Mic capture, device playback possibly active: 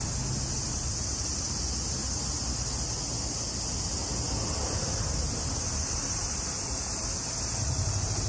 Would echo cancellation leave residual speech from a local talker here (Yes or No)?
No